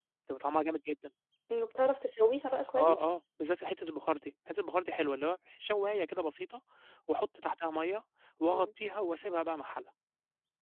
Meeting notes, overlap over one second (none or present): none